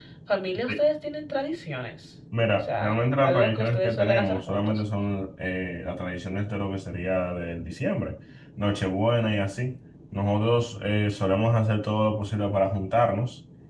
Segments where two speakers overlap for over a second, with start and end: 2.8-4.8

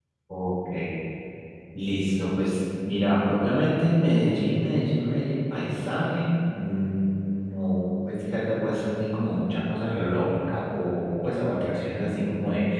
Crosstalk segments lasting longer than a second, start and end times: none

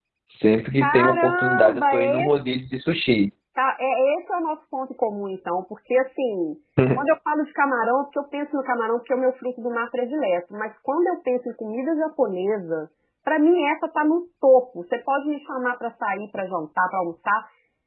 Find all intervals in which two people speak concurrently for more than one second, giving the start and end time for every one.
0.8-2.3

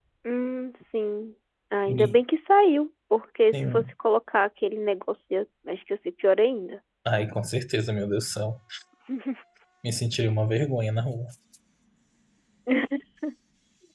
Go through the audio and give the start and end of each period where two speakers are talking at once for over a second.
none

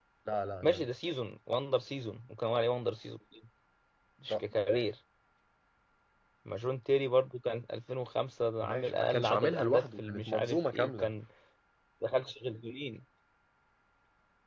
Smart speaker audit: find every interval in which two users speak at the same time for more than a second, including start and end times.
8.6-11.1

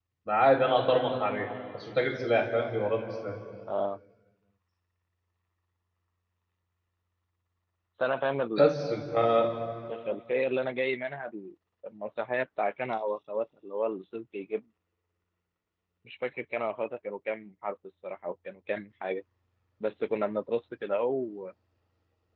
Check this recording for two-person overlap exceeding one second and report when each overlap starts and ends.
none

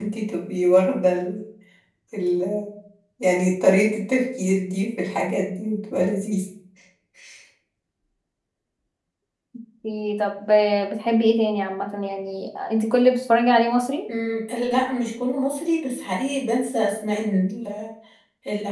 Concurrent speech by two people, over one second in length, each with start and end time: none

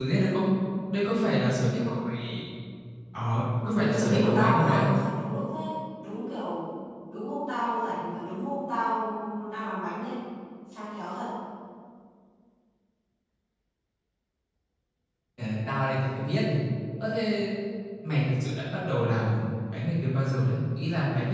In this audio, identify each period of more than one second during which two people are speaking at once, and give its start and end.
3.6-4.9

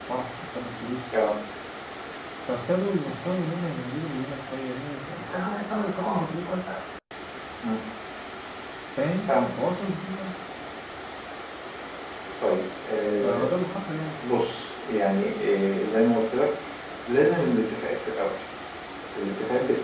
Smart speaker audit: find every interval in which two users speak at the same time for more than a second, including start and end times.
5.3-6.7

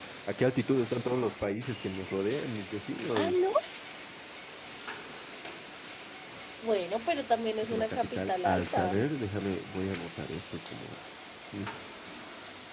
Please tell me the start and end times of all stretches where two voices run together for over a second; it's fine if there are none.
7.6-9.0

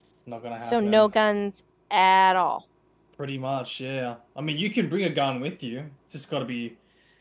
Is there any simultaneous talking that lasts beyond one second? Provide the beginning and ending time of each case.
none

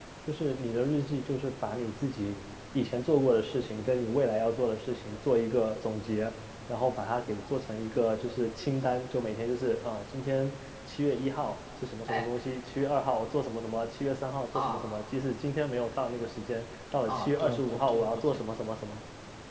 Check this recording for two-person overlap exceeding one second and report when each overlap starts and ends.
17.1-18.4

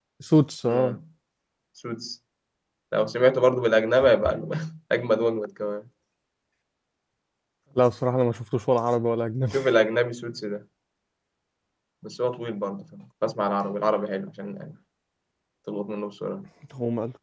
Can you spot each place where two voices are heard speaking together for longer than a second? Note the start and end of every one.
none

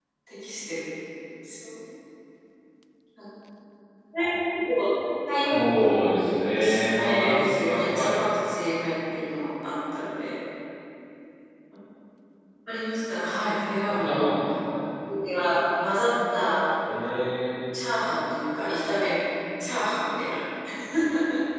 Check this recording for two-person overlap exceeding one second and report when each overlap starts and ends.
6.5-8.2

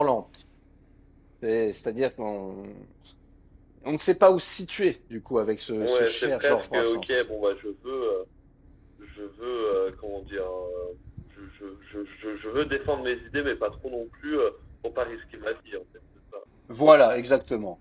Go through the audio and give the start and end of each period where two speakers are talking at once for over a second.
5.8-7.2

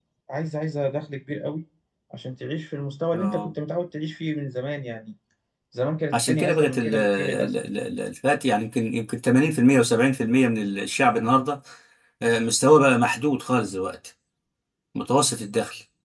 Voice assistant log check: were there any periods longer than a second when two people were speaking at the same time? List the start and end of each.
6.1-7.5

